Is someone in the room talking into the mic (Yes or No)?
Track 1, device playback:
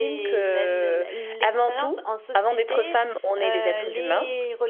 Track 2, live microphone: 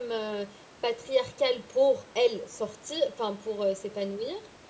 Yes